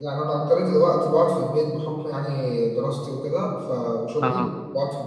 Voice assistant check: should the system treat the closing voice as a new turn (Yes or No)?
No